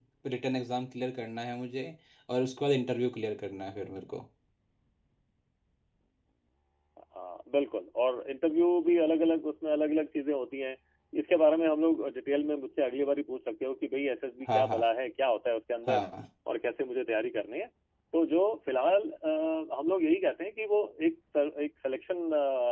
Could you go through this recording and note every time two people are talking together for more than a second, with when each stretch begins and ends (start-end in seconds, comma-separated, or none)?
none